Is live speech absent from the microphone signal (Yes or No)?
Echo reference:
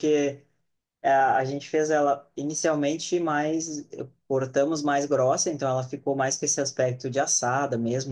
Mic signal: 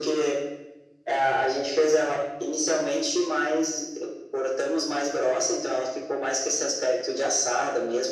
Yes